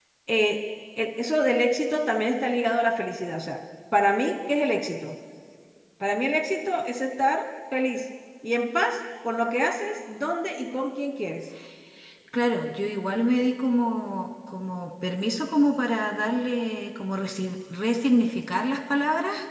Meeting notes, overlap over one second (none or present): none